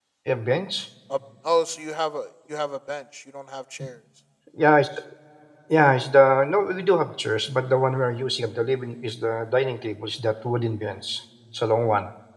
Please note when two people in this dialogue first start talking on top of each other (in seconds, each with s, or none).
none